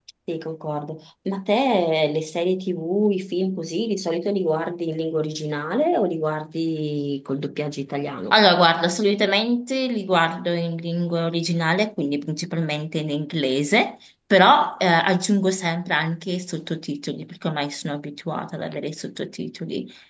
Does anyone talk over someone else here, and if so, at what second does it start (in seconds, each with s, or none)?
none